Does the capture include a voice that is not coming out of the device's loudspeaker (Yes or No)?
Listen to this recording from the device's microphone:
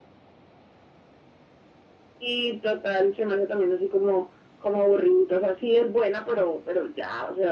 No